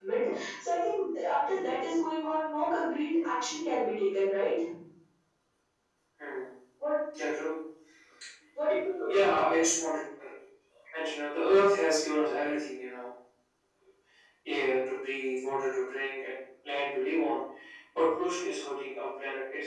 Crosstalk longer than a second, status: none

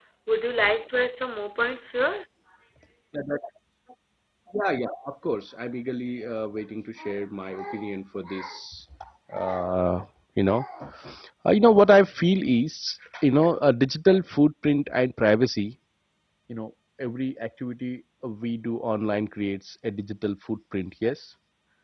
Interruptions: none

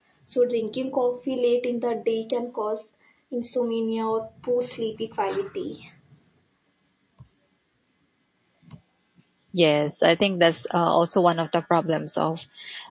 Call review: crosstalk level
none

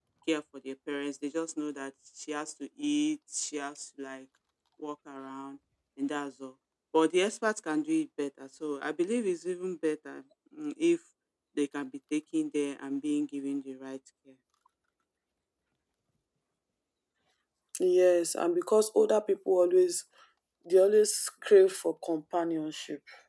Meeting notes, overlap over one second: none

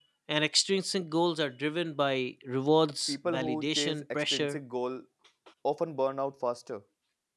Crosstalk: present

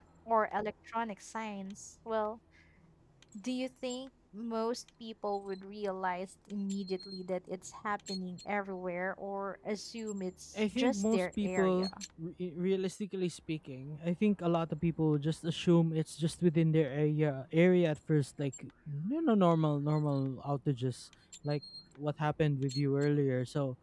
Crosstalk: present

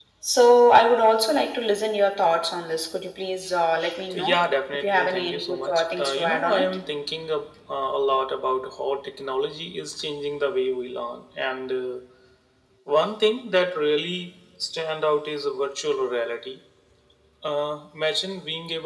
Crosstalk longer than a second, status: present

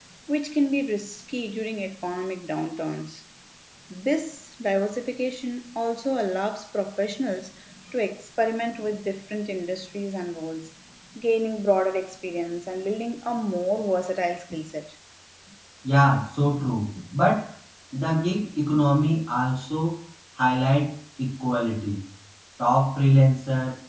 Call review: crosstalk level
none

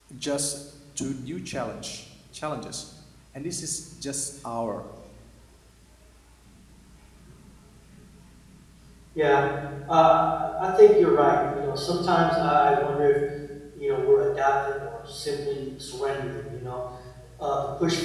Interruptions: none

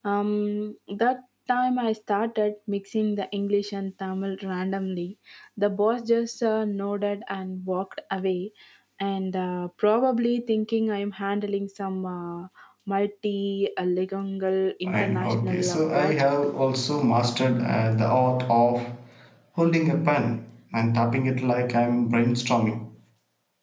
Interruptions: present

